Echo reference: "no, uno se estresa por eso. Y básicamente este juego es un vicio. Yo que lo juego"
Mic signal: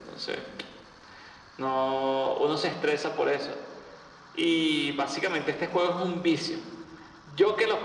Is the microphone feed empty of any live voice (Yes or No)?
Yes